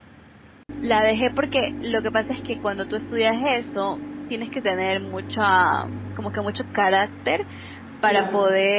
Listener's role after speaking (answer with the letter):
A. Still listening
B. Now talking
A